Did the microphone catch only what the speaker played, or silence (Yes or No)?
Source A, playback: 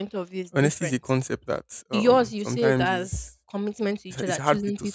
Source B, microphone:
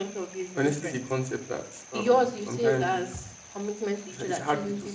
Yes